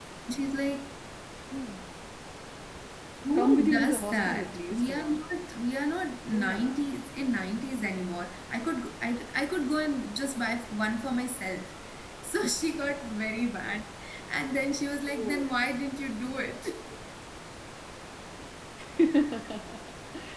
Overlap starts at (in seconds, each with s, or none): 3.4 s